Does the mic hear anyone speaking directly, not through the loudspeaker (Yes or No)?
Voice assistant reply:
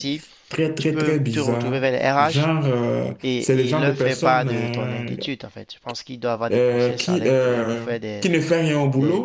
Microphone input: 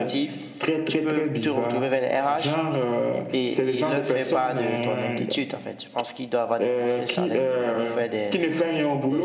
No